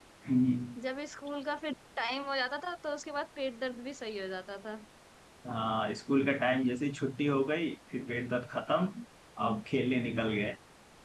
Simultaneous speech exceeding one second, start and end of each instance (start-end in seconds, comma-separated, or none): none